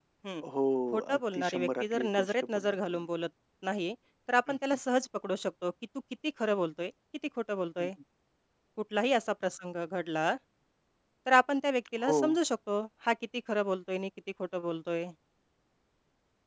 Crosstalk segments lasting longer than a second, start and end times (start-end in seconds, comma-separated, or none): 1.1-3.0